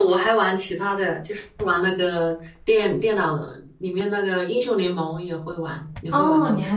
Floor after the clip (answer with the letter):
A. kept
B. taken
B